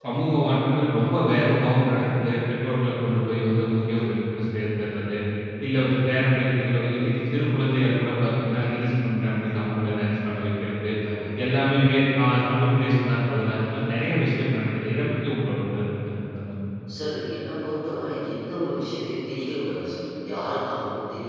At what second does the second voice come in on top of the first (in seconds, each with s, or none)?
none